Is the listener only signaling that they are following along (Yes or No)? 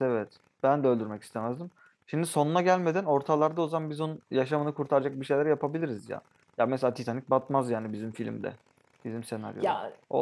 No